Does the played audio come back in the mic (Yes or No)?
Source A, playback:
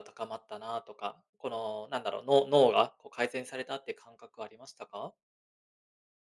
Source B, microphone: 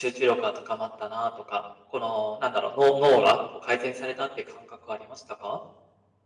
Yes